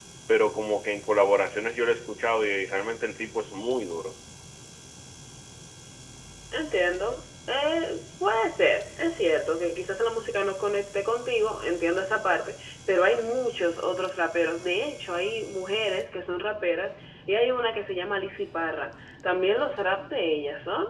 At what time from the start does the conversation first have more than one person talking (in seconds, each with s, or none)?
none